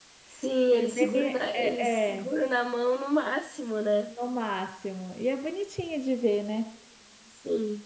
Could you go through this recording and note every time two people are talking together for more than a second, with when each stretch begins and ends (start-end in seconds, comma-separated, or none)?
0.7-2.3